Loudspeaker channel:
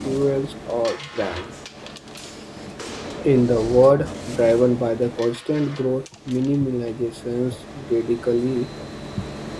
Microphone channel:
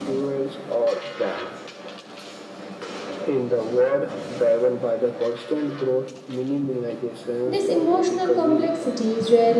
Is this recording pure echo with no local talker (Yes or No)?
No